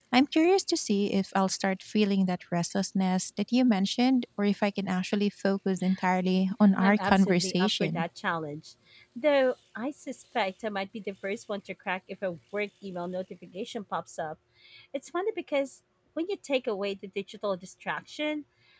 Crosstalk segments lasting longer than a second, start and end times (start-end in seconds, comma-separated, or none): 6.8-8.0